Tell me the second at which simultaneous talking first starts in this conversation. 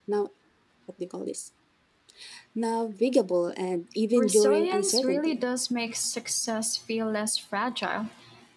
4.2 s

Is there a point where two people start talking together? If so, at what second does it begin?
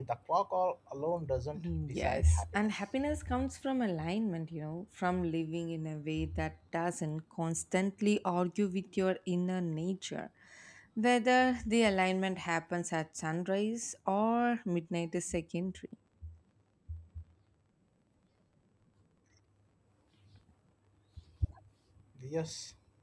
1.6 s

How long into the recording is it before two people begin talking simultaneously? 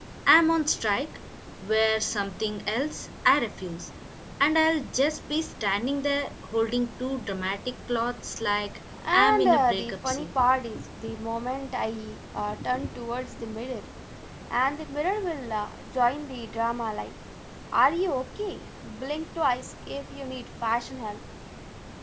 8.9 s

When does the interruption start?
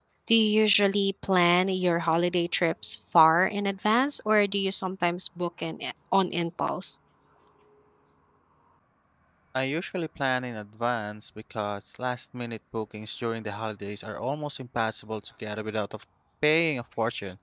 none

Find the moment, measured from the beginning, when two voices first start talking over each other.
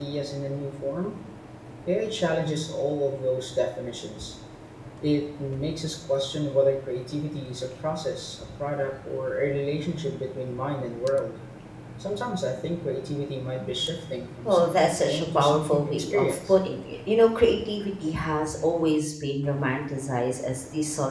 14.4 s

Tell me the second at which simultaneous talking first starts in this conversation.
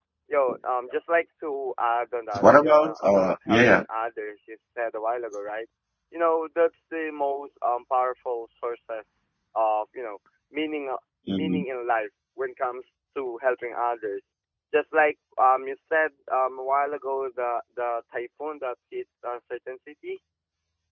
2.4 s

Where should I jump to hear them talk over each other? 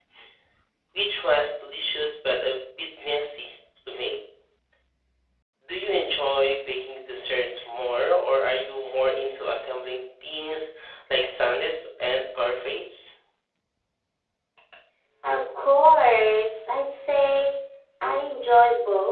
none

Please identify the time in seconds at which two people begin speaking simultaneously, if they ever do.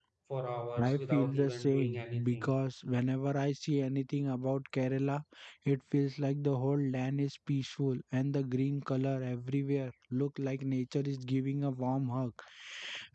0.8 s

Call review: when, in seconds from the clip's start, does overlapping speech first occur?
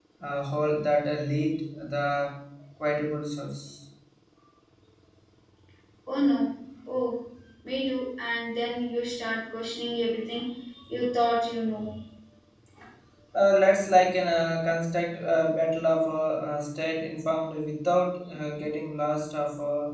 none

